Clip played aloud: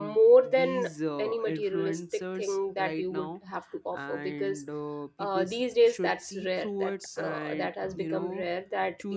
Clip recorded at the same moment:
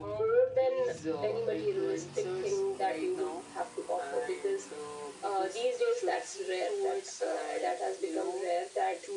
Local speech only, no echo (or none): none